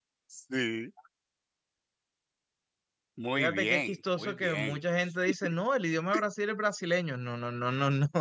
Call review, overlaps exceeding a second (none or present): present